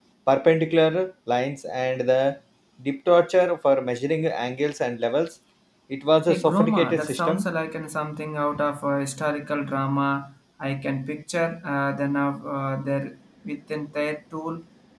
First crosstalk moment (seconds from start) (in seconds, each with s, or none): 6.3 s